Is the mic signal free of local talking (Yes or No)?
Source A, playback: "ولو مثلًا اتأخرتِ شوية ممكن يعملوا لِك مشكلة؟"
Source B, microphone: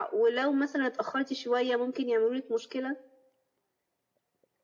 Yes